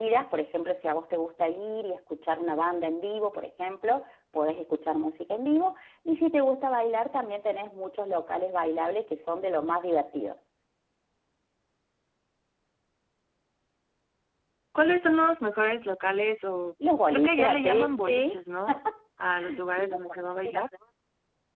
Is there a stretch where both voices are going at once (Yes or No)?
Yes